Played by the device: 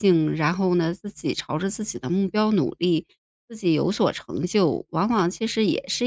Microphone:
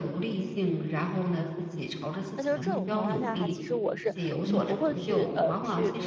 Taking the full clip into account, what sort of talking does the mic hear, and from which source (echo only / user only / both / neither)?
both